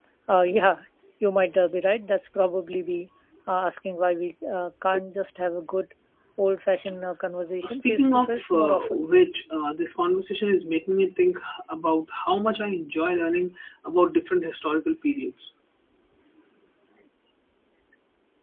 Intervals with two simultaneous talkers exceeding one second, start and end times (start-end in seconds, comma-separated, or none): 7.6-9.0